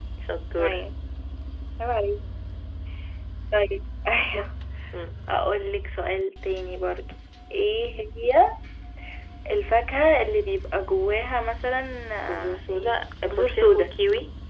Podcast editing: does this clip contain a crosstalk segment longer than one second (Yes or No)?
Yes